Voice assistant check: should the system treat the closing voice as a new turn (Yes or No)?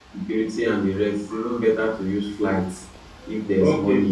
Yes